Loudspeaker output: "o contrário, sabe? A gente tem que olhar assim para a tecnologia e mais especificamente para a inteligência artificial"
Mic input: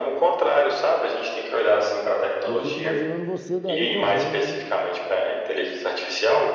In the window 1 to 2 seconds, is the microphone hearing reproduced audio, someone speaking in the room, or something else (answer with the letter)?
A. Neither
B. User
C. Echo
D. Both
C